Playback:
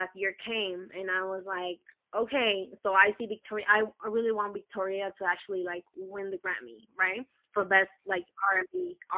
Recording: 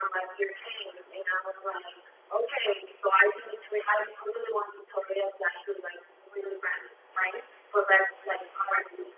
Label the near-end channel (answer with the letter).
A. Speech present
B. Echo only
B